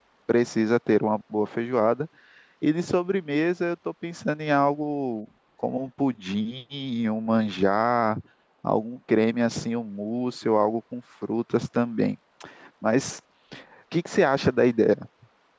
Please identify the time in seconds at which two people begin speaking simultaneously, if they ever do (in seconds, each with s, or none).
none